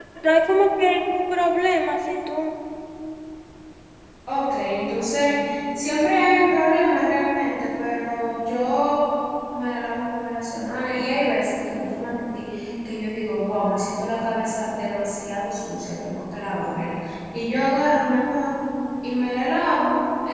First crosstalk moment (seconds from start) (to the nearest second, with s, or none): none